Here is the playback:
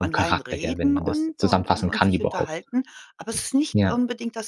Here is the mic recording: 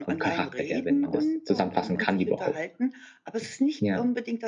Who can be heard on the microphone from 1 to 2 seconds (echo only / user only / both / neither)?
echo only